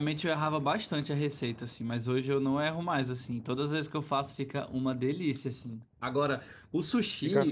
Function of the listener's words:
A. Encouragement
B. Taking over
A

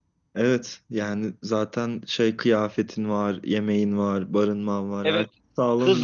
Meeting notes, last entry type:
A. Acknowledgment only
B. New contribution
B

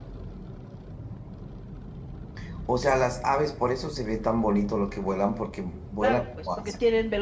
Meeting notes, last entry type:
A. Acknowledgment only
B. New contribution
B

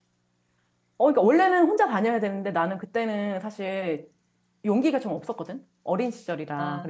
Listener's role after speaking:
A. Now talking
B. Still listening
A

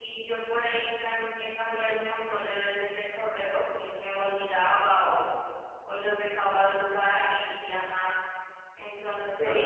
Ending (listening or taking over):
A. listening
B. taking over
A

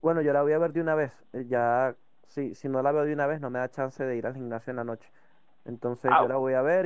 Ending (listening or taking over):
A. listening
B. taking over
A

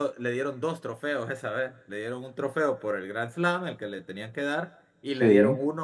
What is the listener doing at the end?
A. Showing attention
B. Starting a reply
A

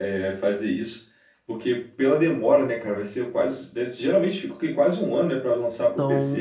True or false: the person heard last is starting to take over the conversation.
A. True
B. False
A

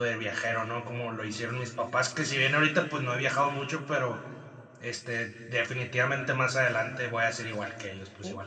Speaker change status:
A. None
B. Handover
B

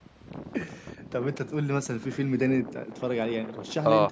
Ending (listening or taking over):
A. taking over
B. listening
A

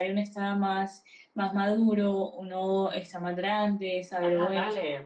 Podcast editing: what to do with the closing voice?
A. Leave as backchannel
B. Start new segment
B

